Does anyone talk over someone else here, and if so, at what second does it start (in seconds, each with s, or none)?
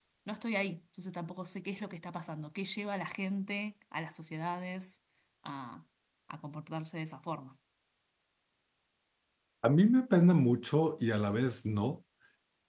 none